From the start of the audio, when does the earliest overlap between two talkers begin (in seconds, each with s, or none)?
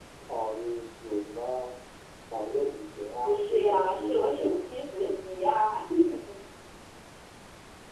3.2 s